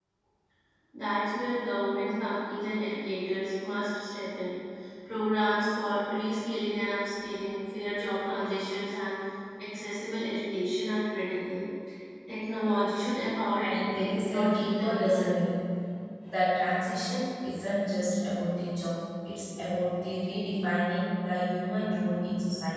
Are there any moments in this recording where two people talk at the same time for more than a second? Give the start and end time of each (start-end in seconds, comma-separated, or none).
13.5-15.4